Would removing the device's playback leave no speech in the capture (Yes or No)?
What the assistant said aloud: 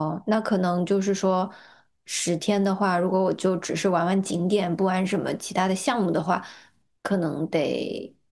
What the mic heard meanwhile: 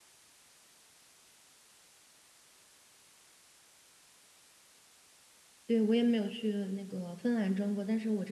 No